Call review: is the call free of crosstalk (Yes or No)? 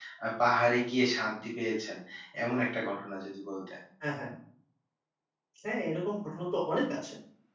Yes